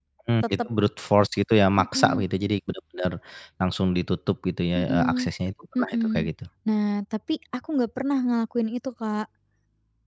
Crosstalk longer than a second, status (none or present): none